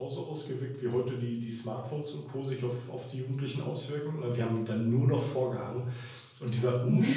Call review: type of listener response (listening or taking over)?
listening